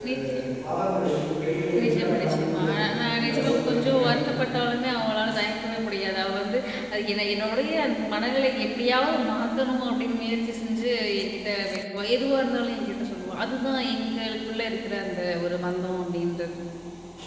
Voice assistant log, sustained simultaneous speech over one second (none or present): present